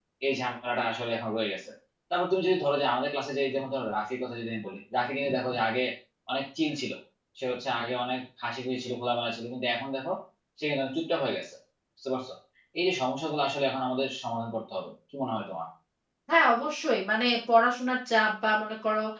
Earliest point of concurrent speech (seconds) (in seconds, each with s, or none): none